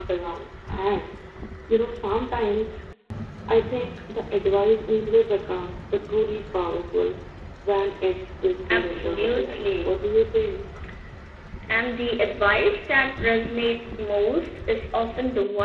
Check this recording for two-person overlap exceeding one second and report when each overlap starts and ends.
8.7-9.9

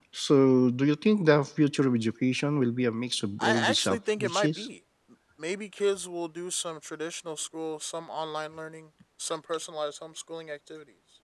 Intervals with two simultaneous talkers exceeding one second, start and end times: 3.4-4.7

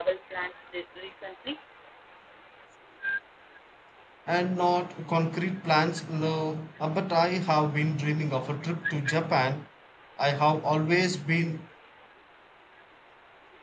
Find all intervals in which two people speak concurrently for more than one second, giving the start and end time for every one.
none

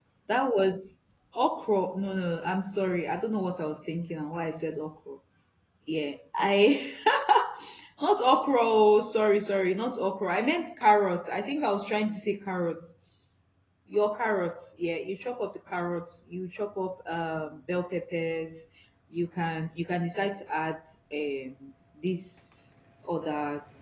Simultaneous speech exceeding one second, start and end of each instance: none

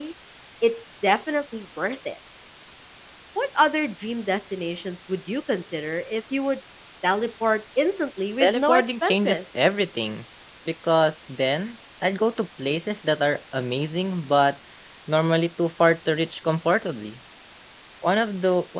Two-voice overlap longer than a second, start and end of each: 8.4-9.6

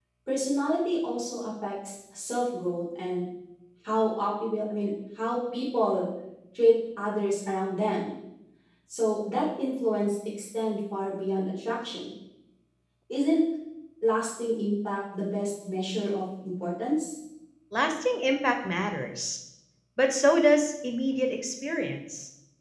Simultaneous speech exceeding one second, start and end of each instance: none

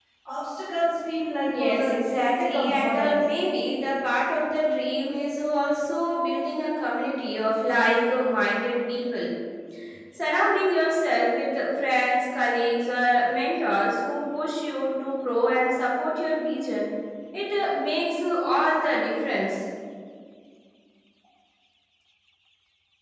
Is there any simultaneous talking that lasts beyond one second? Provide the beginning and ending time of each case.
1.5-3.2

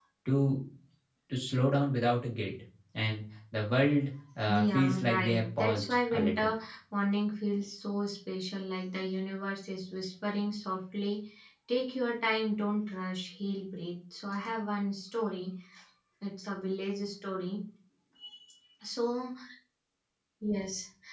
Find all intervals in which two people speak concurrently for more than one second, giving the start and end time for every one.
4.5-6.5

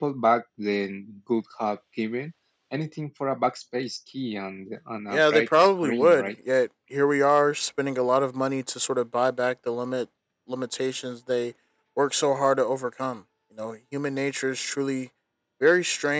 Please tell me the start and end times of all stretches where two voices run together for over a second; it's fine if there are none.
5.1-6.3

